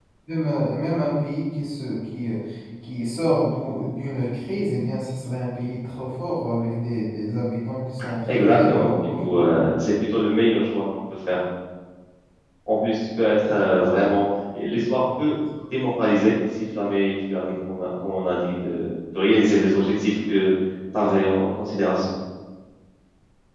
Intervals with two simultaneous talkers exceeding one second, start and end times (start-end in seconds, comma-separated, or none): 8.3-9.5